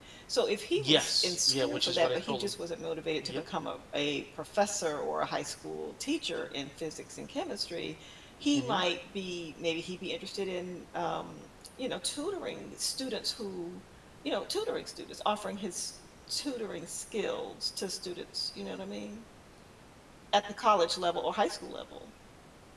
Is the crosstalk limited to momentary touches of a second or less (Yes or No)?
No